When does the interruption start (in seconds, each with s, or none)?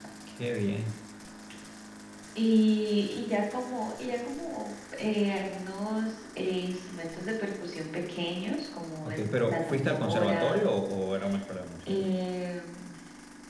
9.0 s